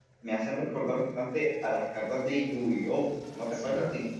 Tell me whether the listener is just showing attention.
No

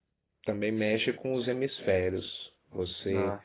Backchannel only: Yes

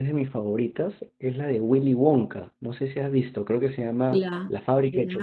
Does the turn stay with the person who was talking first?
No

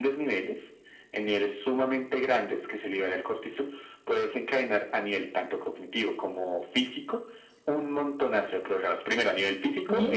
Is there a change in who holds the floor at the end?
No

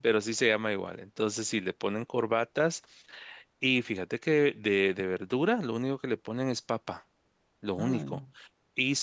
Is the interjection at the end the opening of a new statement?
No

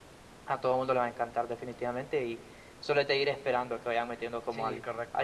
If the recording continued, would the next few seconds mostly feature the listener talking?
Yes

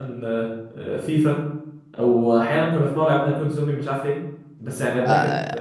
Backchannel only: No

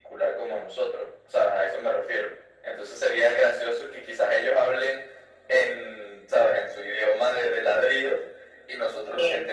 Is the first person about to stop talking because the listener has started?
No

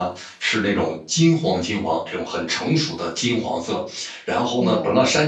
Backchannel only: Yes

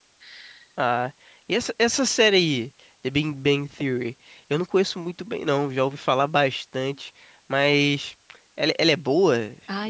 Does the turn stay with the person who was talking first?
No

